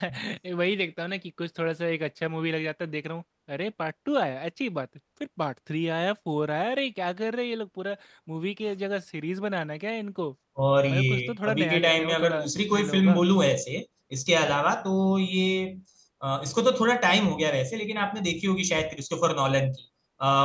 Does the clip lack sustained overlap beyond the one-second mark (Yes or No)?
No